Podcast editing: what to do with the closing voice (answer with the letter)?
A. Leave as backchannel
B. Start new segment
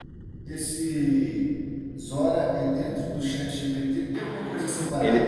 B